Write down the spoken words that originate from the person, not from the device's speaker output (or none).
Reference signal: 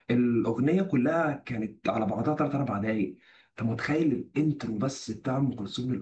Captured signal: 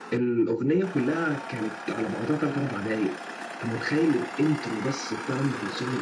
none